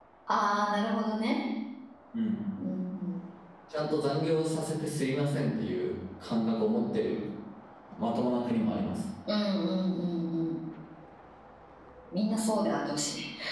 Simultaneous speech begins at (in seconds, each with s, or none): none